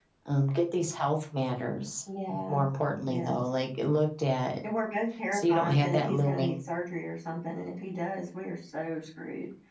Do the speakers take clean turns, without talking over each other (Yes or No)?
No